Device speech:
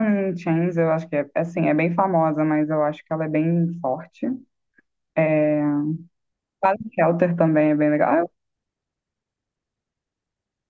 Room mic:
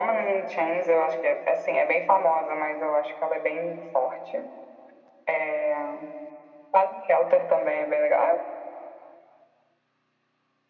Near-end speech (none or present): none